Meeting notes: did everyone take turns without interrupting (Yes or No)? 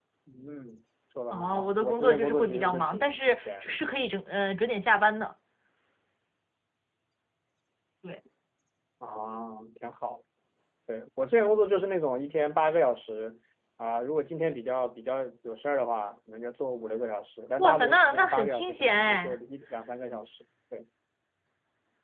No